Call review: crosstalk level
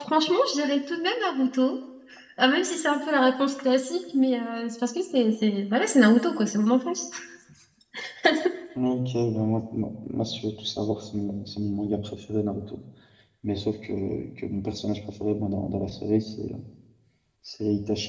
none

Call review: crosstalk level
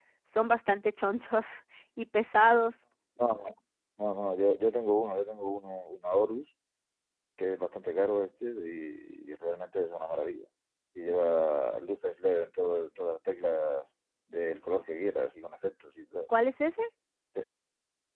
none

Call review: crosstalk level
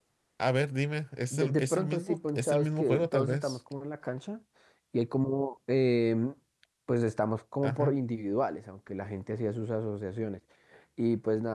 present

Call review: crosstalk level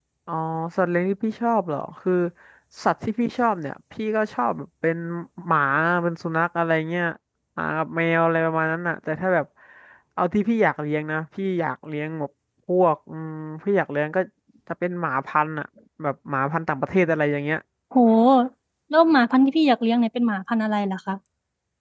none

